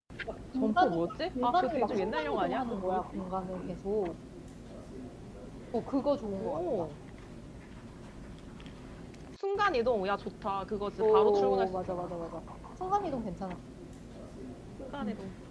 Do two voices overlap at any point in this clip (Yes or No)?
Yes